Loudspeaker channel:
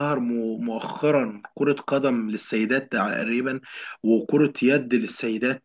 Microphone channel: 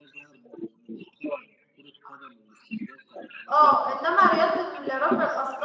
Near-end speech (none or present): present